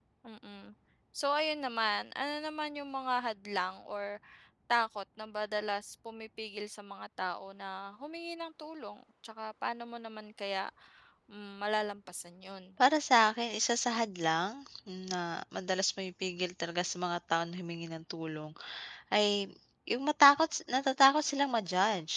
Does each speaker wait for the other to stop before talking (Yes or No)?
Yes